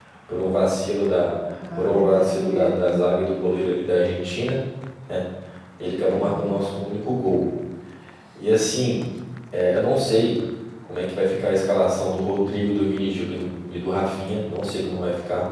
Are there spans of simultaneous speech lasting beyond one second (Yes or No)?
Yes